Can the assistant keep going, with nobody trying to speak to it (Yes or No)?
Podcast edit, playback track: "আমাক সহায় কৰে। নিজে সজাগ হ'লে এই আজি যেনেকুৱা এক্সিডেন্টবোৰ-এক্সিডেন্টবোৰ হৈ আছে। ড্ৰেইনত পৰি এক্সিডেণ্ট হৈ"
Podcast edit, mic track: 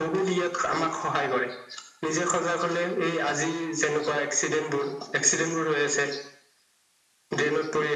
Yes